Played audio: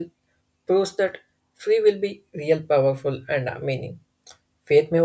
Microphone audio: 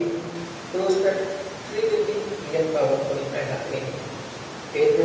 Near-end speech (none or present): none